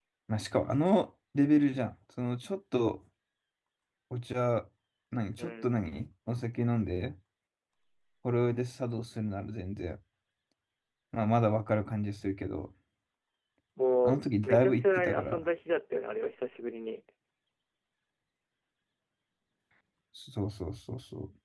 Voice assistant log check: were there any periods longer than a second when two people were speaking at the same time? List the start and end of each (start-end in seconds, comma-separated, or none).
14.1-15.4